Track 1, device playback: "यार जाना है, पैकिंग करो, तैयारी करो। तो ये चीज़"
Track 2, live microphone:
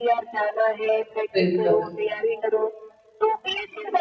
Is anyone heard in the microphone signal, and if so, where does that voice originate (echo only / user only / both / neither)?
both